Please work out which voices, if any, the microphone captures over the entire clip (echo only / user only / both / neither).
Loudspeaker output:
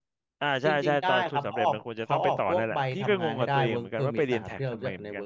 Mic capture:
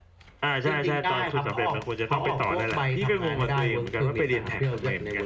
echo only